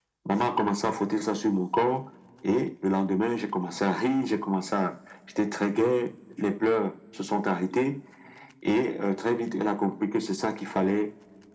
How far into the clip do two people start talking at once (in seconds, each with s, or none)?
none